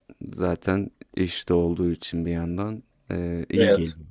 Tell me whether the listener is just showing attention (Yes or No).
No